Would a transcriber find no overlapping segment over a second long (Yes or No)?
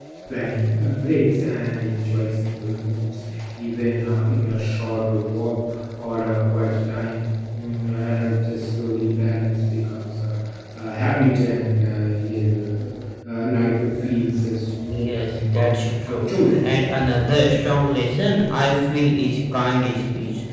No